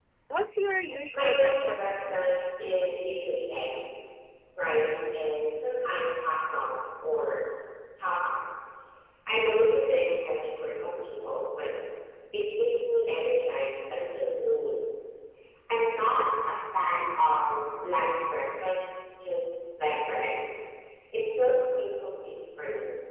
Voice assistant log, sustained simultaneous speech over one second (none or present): present